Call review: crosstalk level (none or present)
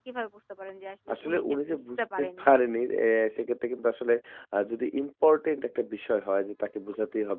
present